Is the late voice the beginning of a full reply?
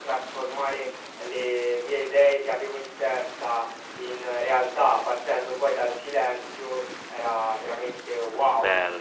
Yes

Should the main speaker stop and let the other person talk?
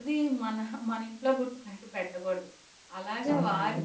No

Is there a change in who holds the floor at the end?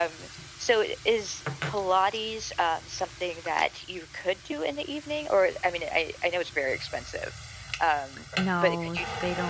Yes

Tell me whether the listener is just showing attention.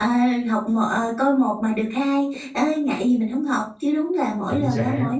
Yes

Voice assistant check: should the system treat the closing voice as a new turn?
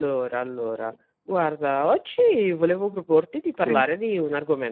No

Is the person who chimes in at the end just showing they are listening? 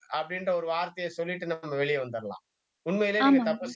Yes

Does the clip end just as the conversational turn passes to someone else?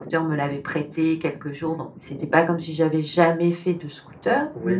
Yes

